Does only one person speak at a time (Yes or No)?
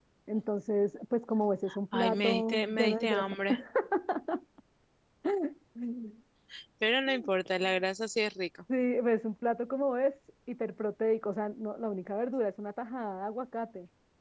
No